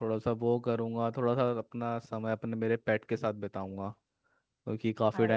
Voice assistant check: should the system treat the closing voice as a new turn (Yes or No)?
No